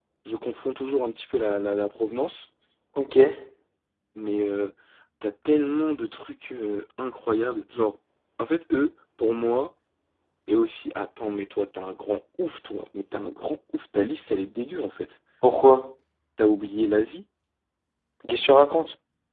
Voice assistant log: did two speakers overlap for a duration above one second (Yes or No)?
No